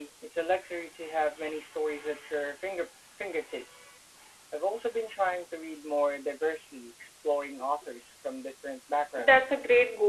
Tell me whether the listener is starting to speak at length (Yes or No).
Yes